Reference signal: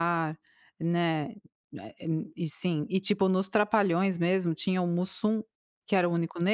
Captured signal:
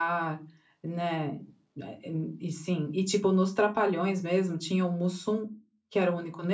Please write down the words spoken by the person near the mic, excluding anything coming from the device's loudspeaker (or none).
none